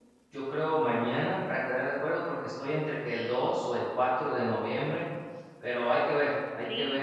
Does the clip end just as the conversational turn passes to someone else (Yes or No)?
Yes